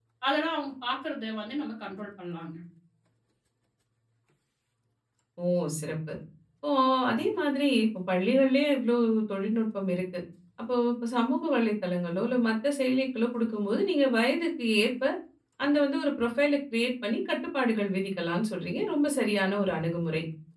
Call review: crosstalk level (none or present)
none